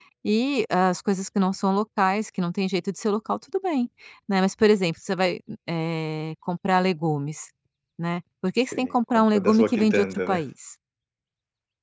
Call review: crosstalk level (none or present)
present